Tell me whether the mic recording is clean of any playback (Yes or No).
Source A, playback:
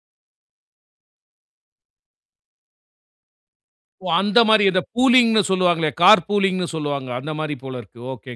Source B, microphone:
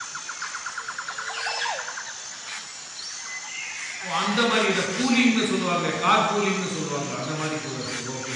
No